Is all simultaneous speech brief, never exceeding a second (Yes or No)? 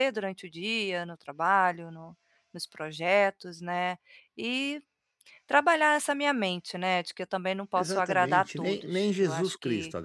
No